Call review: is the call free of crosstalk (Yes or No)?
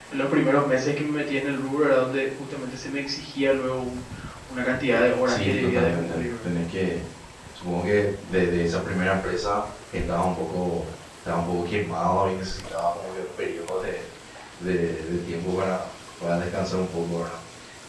No